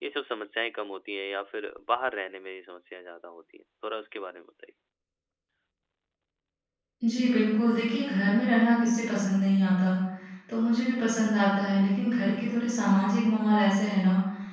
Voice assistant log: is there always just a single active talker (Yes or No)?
Yes